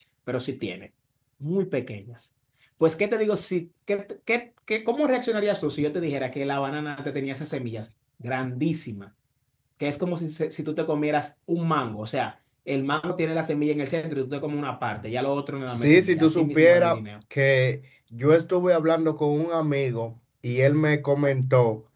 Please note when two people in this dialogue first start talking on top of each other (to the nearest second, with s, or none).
16 s